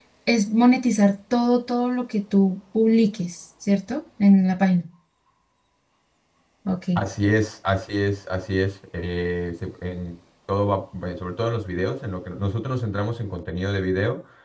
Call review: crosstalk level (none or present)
none